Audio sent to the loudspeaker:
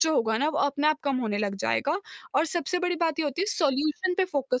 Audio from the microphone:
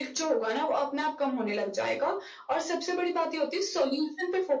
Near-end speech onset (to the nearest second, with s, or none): none